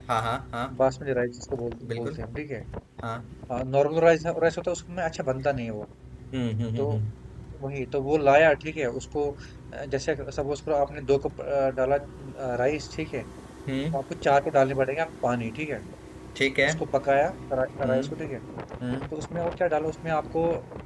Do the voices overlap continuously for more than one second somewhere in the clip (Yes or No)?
No